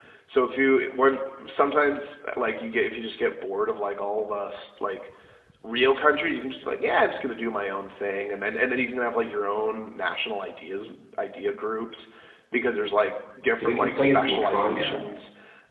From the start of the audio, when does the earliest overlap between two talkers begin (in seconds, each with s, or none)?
13.6 s